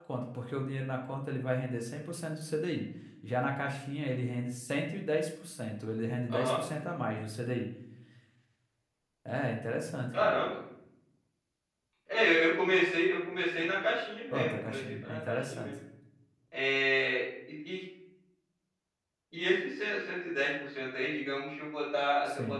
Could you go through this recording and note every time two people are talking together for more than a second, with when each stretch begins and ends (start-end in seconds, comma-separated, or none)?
14.3-15.7